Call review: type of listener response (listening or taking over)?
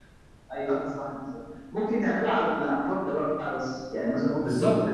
taking over